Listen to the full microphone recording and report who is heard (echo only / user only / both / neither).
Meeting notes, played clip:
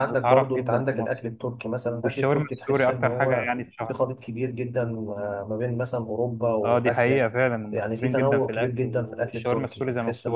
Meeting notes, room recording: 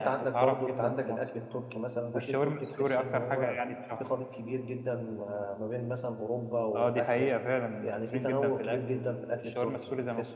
echo only